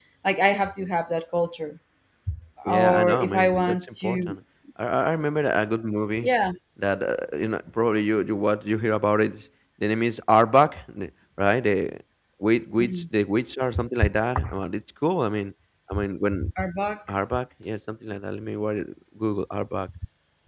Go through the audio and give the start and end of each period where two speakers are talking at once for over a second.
2.7-4.4

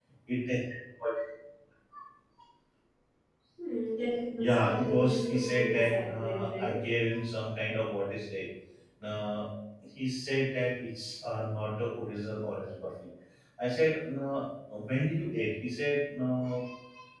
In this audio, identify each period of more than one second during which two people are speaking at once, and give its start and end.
4.4-6.9

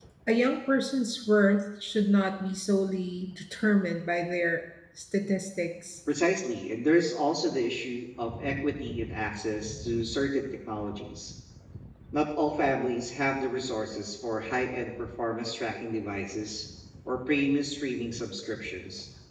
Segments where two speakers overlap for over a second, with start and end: none

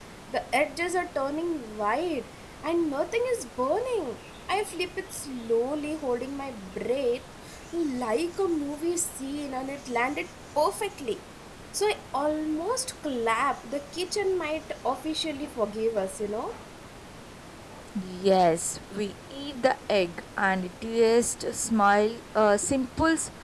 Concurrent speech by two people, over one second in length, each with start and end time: none

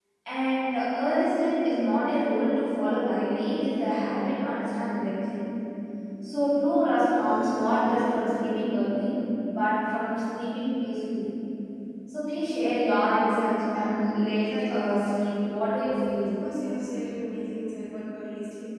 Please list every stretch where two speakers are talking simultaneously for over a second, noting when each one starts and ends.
14.5-15.7

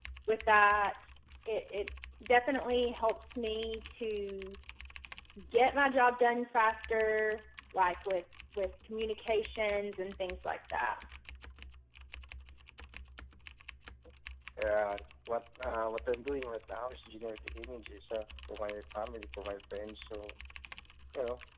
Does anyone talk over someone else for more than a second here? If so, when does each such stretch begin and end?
none

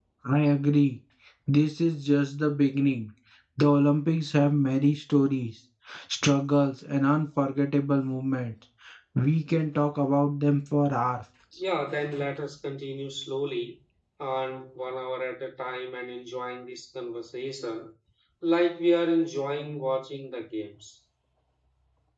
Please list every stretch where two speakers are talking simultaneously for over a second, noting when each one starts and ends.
none

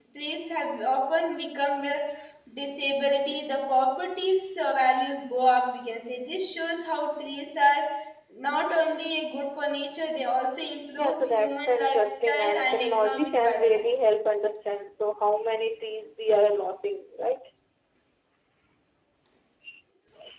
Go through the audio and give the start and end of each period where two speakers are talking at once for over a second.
11.0-13.8

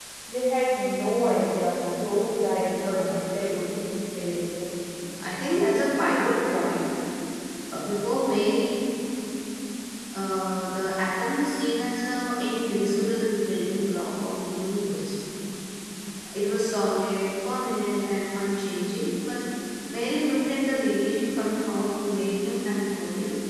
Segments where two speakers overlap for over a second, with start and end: 2.6-3.9

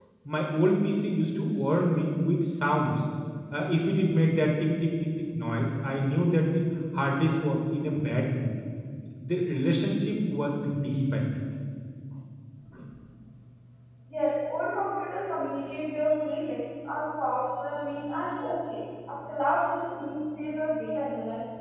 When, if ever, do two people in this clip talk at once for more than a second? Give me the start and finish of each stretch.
none

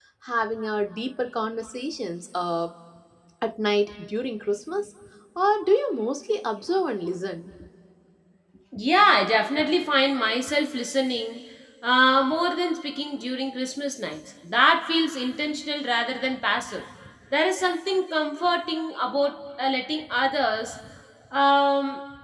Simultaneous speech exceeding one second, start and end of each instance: none

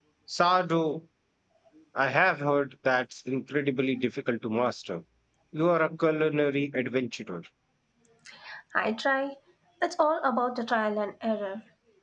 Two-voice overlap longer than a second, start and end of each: none

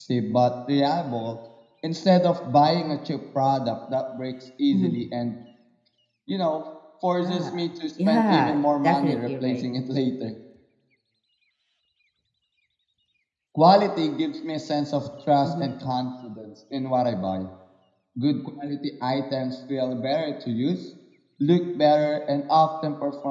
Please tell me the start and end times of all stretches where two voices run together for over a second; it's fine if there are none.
8.0-9.6

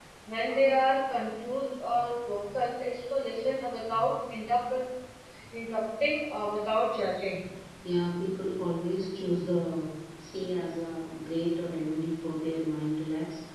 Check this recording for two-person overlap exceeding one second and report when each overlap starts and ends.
none

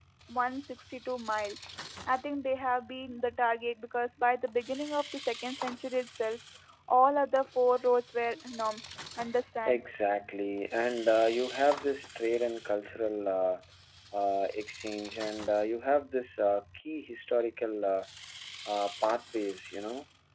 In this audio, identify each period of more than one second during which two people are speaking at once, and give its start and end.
none

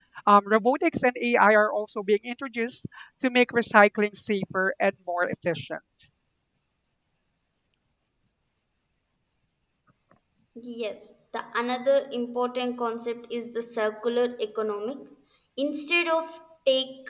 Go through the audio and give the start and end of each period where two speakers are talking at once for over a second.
none

